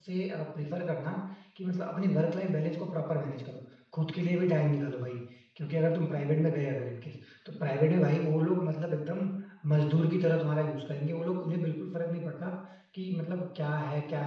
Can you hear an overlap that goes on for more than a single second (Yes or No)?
No